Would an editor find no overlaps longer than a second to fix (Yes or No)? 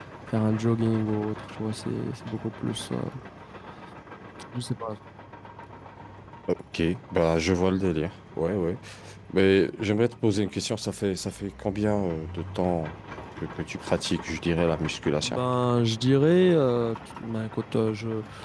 Yes